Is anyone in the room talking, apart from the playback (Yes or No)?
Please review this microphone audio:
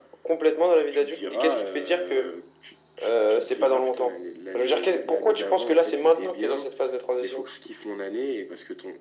No